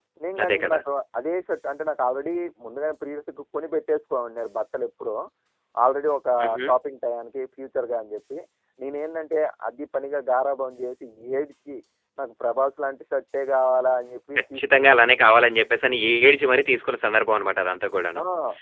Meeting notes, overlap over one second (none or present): none